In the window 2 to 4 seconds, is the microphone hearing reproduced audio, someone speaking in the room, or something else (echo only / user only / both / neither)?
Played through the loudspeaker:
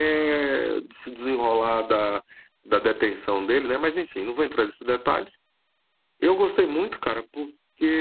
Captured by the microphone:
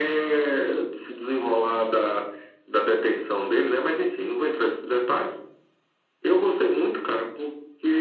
echo only